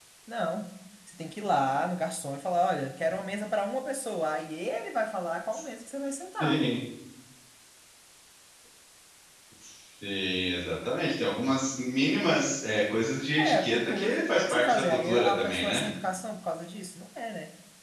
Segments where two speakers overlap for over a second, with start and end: 13.3-15.8

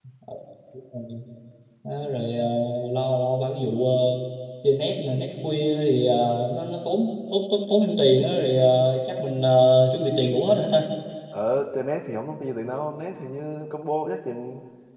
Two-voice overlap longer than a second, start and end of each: none

